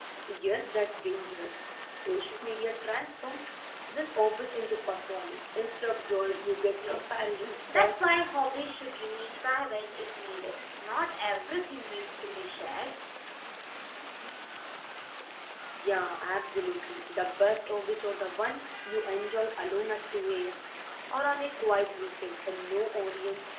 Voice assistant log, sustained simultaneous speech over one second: none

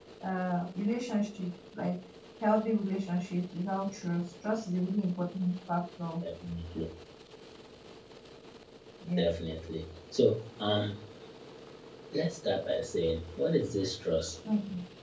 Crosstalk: none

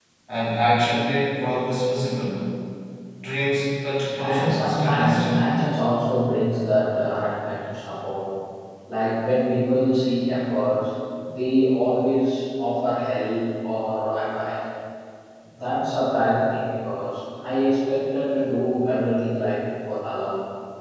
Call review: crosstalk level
present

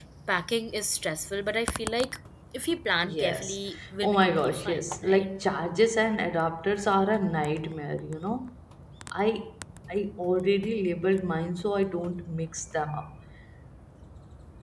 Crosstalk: present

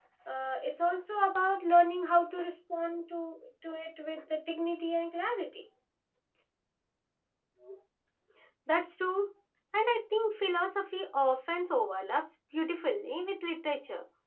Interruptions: none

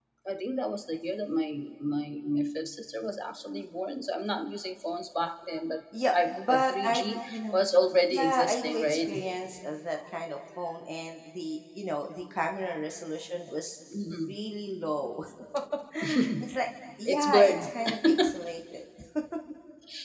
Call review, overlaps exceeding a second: present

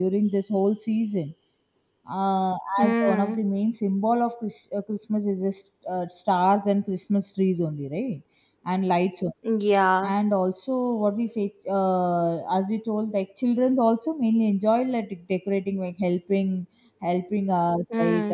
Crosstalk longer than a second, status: none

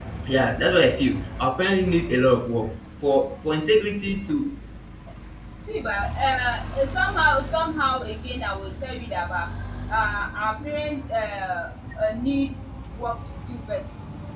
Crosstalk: none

